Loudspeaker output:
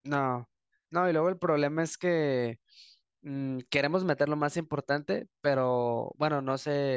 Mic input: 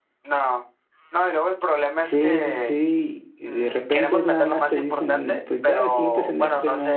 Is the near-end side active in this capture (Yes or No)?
Yes